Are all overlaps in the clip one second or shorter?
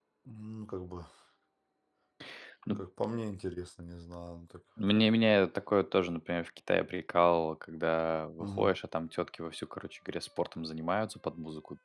Yes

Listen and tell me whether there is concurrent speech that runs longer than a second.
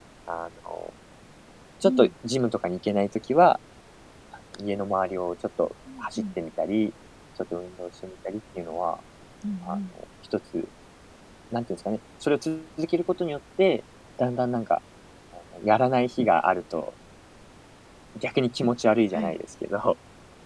No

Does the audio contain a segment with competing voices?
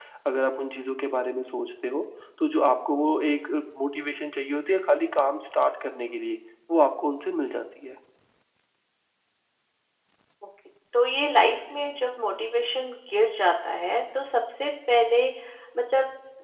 No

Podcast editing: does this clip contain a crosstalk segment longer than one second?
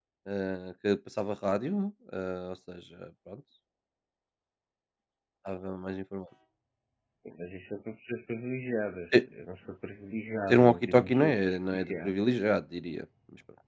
Yes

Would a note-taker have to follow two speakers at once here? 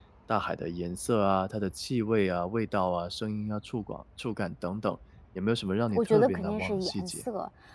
Yes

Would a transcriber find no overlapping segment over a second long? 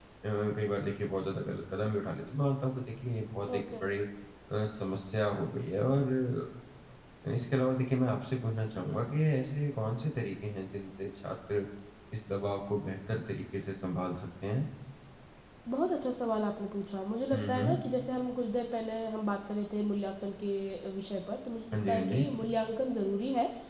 Yes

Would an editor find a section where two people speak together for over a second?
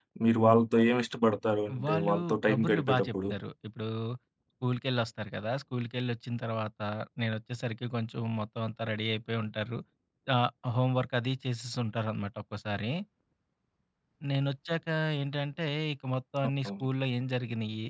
Yes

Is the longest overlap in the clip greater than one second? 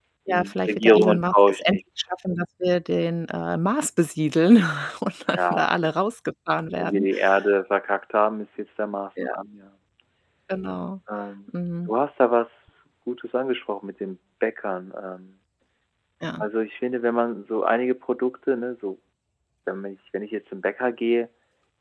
Yes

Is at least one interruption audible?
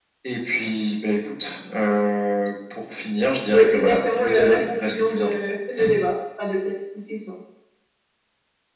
Yes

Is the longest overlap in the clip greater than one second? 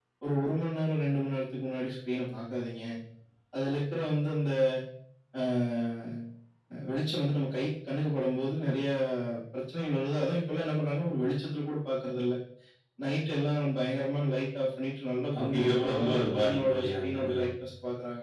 Yes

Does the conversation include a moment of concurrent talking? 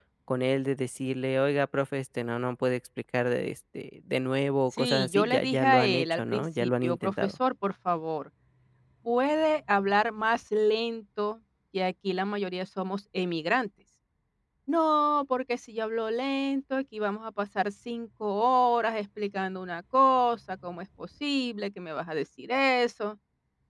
Yes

